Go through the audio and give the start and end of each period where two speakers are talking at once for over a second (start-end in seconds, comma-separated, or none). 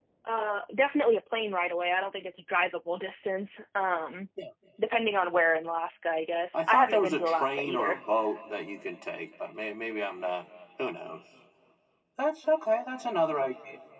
6.5-8.0